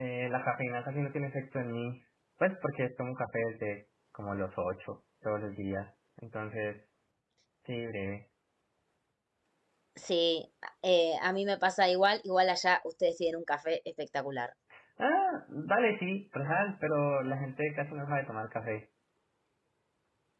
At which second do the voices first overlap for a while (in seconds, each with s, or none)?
none